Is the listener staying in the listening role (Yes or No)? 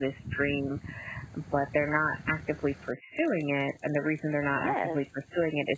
Yes